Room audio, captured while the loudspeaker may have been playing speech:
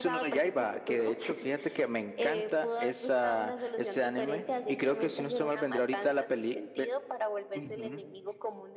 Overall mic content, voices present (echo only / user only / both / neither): echo only